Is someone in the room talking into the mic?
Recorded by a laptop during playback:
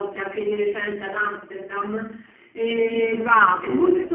Yes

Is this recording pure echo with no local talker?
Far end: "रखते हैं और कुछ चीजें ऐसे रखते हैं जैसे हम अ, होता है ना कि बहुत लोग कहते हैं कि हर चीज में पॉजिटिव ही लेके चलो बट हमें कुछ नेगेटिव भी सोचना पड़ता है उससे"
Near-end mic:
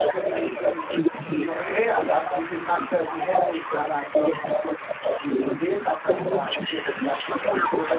No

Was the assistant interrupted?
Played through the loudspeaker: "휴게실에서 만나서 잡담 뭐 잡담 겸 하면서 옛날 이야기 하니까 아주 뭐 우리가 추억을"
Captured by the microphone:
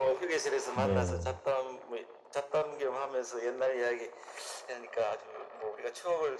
Yes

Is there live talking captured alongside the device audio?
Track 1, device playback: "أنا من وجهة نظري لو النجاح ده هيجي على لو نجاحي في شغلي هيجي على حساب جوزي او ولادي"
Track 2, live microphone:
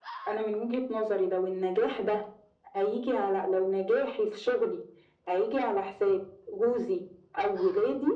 No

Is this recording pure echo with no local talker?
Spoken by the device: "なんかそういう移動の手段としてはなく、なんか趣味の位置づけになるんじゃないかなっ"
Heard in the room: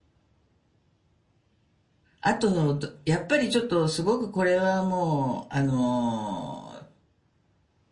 No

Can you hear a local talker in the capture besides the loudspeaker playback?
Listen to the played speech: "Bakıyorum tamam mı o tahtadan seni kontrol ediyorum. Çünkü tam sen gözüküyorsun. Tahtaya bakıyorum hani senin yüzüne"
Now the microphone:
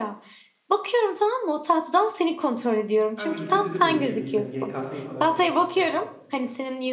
Yes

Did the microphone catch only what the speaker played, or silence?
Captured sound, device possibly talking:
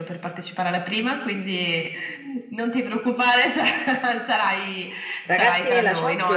No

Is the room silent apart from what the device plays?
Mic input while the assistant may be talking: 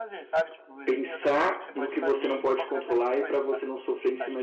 No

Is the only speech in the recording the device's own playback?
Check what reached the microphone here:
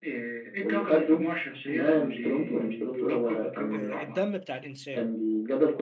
No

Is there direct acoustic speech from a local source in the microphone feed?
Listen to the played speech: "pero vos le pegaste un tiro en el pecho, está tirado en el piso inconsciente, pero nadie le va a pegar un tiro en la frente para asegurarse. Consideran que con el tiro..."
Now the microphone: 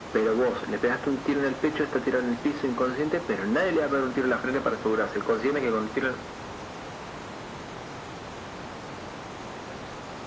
No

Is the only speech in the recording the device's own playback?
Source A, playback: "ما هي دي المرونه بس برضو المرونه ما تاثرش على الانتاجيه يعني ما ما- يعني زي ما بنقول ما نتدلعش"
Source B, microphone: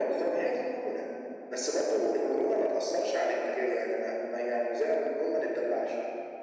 Yes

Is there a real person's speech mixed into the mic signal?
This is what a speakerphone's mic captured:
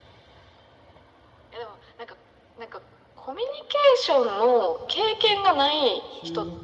Yes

